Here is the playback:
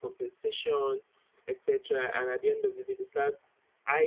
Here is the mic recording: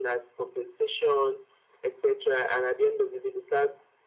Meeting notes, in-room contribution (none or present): none